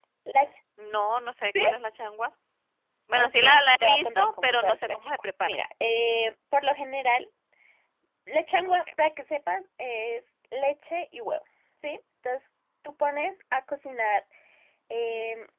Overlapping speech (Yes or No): Yes